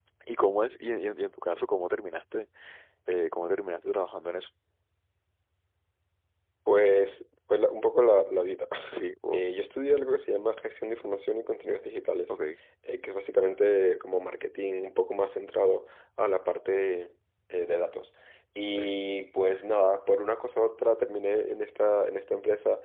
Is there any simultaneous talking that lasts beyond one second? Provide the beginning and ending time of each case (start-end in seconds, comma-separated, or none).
none